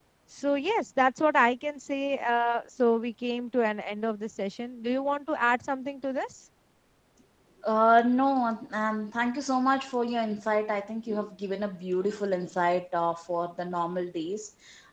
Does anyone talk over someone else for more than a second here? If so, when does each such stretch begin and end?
none

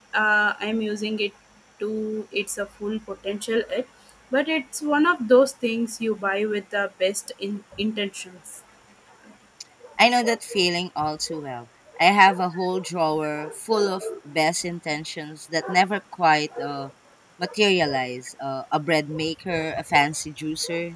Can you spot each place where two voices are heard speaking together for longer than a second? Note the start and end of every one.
none

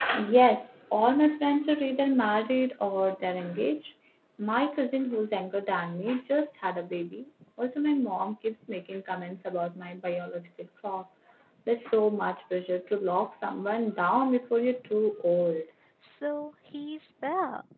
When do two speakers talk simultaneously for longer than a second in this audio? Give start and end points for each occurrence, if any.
none

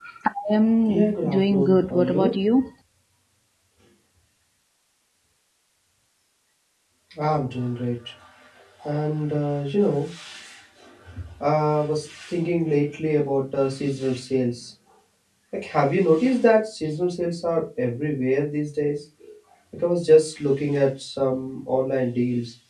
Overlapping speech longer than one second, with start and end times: 0.9-2.3

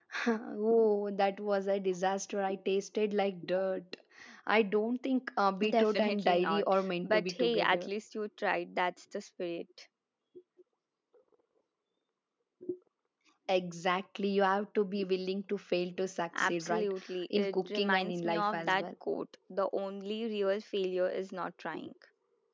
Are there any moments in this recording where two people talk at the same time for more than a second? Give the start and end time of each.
5.7-7.9, 17.4-18.8

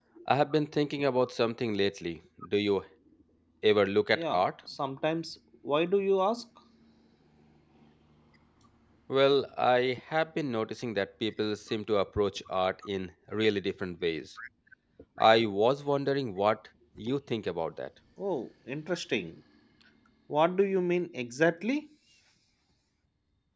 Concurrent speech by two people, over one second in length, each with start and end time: none

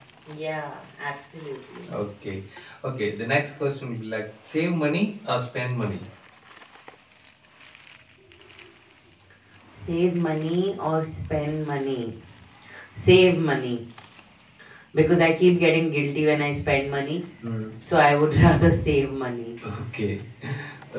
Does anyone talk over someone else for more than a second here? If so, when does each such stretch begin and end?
none

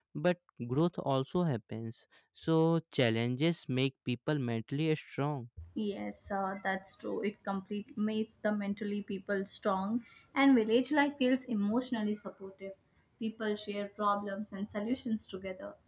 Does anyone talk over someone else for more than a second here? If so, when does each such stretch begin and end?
none

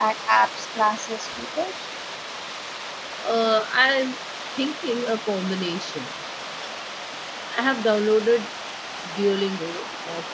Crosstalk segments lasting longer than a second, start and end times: none

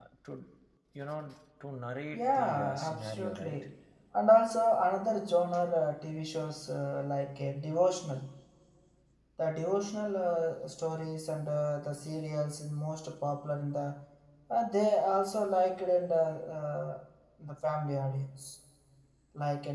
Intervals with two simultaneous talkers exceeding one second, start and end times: 2.1-3.7

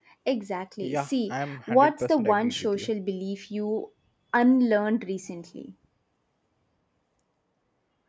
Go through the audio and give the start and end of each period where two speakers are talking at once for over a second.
0.8-2.9

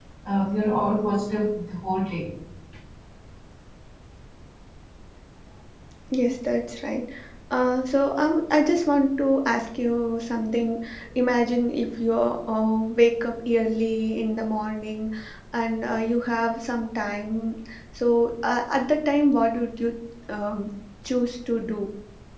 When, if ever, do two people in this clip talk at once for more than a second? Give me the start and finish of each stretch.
none

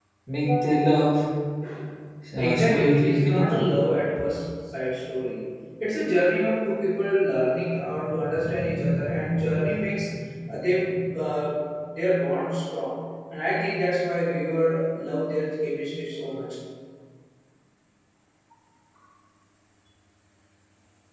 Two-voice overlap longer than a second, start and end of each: 2.3-3.7

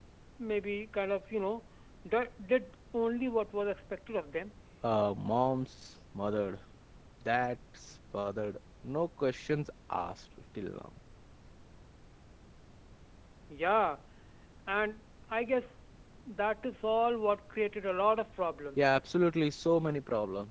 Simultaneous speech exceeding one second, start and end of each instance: none

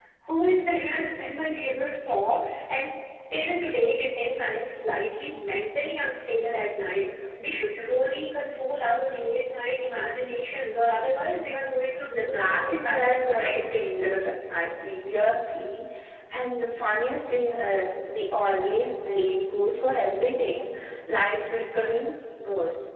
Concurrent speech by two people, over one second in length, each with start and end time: 12.1-13.8

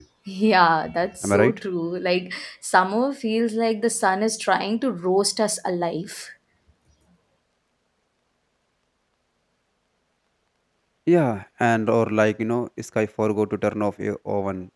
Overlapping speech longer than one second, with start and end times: none

